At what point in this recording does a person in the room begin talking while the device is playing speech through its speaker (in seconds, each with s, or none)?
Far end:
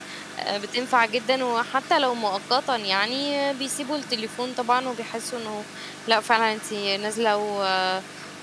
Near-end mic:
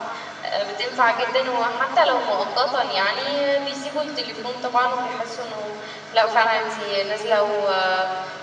none